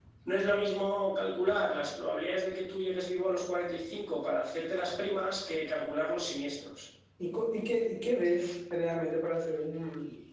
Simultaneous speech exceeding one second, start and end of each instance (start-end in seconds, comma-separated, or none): none